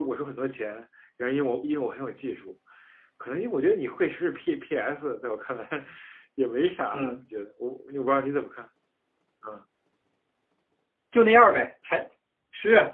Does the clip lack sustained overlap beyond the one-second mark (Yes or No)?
Yes